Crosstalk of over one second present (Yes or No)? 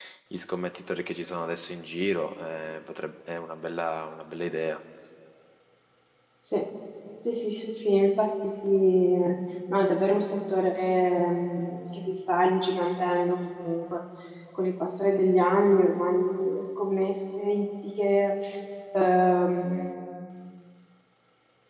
No